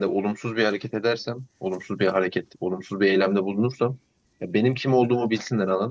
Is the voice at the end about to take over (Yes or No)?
No